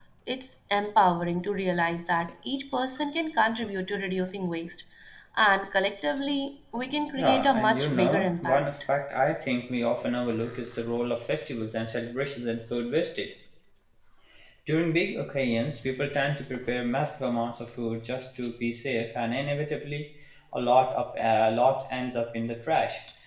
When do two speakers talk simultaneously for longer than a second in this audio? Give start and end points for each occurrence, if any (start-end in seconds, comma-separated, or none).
7.2-8.6